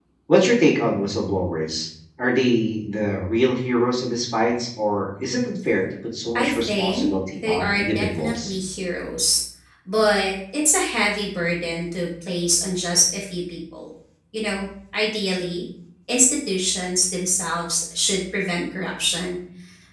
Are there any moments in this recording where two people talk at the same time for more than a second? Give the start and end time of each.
6.4-8.5

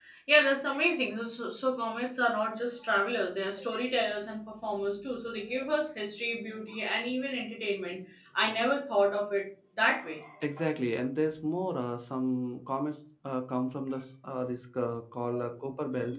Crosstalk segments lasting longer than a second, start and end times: none

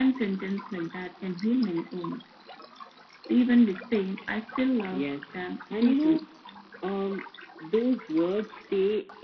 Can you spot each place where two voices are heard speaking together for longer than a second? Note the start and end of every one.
4.9-6.2

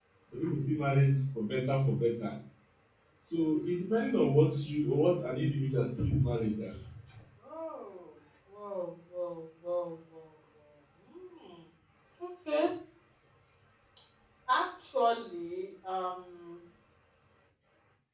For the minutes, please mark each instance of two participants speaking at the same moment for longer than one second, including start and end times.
none

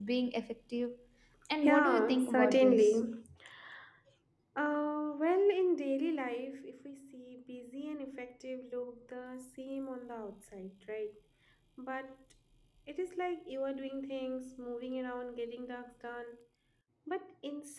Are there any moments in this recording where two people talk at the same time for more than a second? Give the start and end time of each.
1.6-3.0

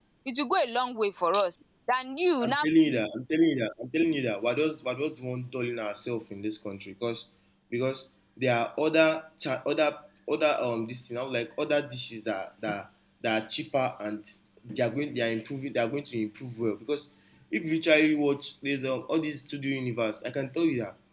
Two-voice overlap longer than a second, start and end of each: none

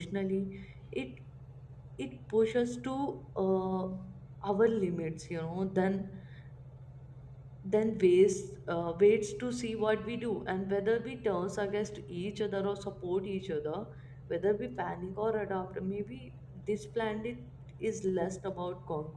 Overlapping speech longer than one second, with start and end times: none

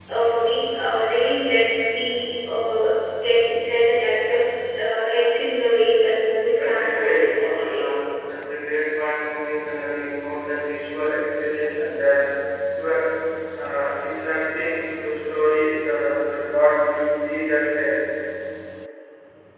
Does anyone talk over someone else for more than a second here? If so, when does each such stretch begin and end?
6.6-7.8

